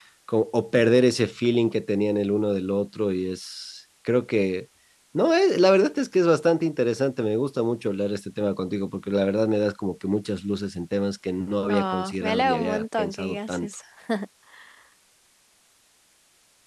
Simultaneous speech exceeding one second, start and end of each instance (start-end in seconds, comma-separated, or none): 11.7-13.7